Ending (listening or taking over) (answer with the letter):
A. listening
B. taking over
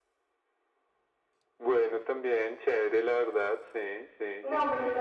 B